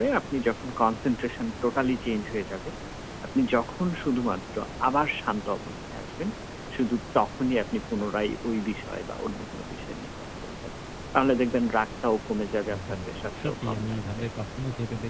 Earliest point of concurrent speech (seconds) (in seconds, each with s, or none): 12.7 s